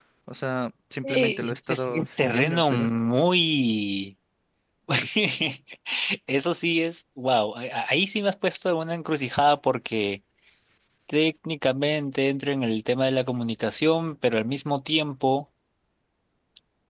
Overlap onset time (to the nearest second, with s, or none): 1 s